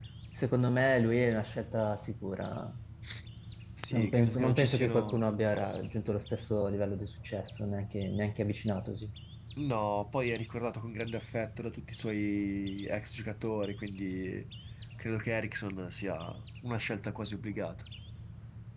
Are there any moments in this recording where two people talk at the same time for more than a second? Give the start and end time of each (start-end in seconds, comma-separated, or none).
3.9-5.2